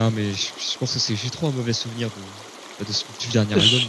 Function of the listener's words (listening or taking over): taking over